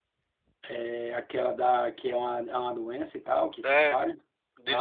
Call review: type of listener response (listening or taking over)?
taking over